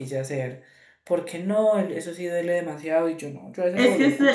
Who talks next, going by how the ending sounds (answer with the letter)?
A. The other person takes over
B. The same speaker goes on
A